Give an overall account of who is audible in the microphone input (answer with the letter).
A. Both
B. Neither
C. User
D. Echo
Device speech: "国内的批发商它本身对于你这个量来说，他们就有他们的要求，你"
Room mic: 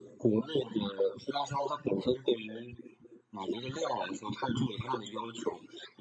D